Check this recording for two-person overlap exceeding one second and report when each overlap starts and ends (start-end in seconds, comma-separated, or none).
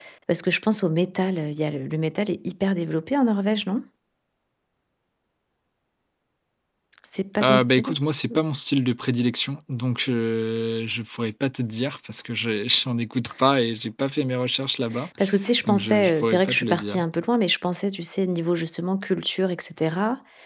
15.7-17.0